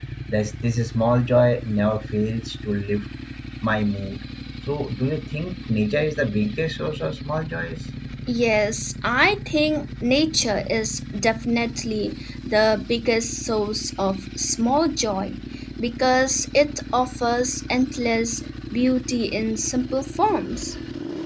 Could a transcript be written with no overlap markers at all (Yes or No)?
Yes